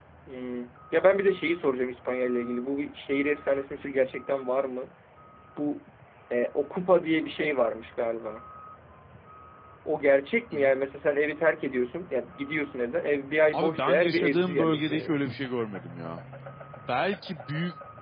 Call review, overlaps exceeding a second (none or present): present